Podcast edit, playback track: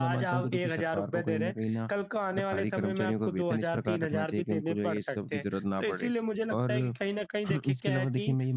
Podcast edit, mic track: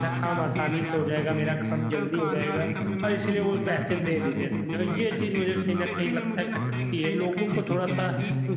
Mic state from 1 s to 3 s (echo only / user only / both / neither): both